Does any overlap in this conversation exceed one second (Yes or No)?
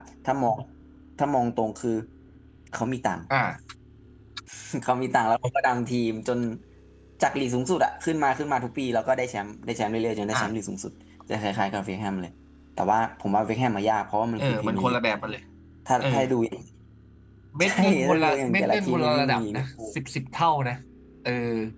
Yes